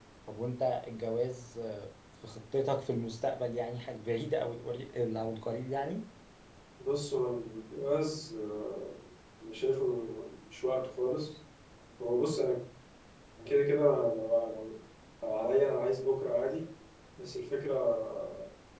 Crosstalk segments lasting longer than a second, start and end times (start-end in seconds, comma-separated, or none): none